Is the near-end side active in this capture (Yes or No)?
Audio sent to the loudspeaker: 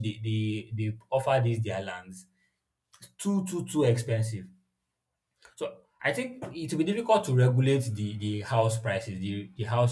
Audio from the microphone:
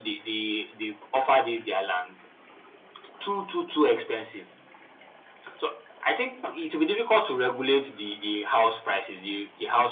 No